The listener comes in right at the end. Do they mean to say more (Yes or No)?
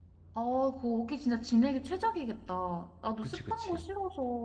No